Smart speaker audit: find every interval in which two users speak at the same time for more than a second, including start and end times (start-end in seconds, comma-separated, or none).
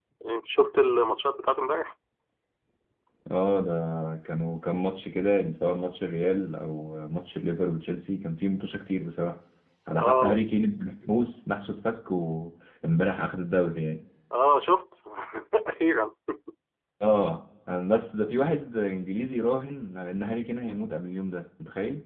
none